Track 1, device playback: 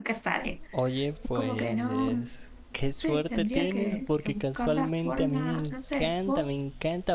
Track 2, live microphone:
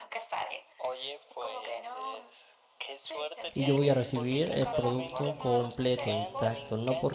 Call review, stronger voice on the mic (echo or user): user